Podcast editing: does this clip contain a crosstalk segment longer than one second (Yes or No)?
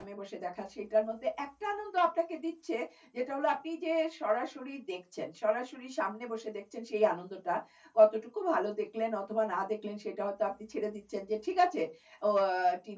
No